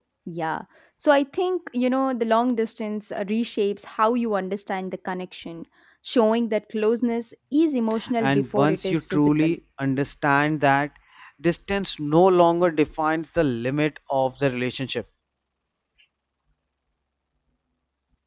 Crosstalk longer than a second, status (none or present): present